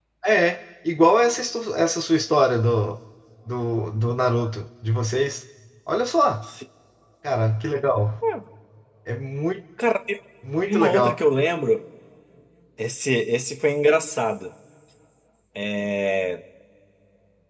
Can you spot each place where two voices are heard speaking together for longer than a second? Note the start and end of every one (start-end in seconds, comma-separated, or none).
none